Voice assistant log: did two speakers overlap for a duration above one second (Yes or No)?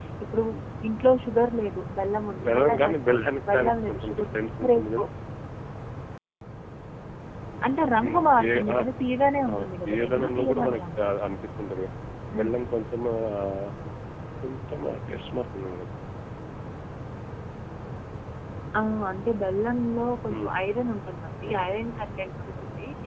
Yes